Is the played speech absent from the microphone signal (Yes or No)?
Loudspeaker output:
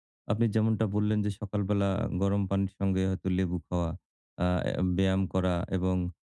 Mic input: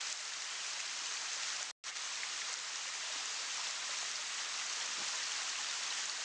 Yes